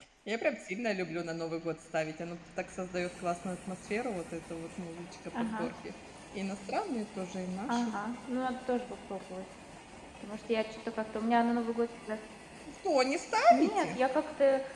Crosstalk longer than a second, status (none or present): none